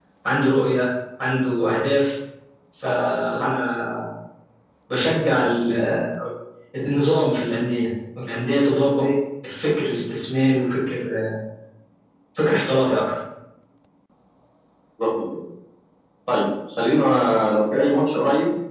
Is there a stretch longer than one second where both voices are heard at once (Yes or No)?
No